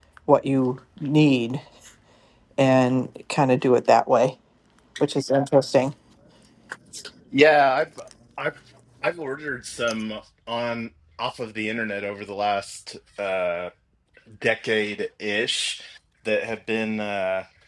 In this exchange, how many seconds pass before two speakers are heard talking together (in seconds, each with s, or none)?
none